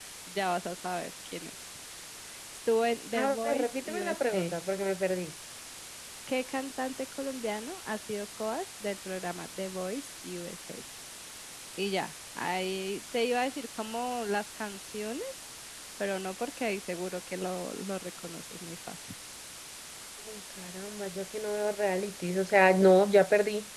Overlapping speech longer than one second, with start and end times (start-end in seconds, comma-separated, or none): 3.2-4.5